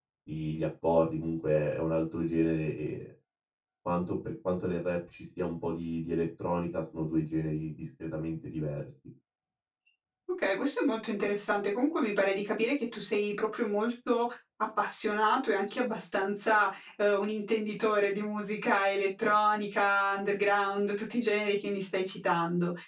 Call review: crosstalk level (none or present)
none